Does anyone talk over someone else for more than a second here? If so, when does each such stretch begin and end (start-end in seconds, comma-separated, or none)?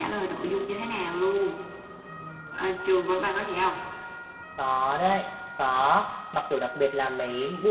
none